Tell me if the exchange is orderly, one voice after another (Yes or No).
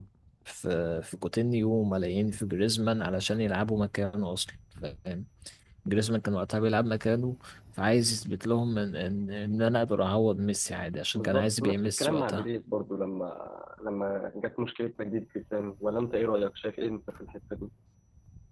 No